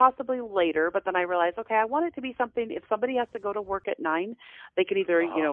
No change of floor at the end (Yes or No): Yes